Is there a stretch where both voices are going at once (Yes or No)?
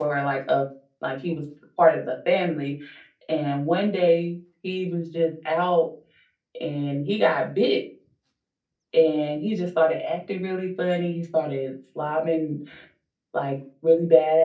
No